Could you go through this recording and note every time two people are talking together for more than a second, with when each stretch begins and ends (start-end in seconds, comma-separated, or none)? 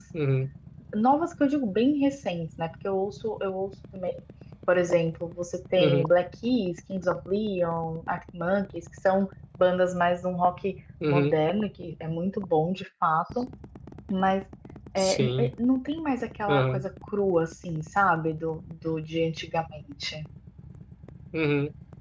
none